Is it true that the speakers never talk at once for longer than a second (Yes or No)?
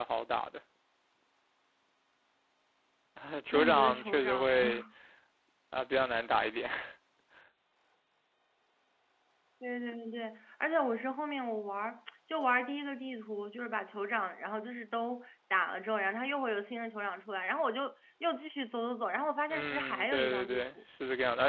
No